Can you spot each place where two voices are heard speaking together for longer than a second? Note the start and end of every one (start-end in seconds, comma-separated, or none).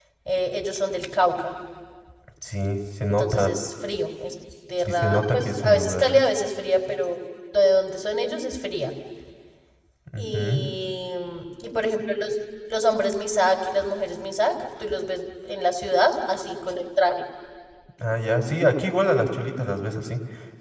4.8-6.2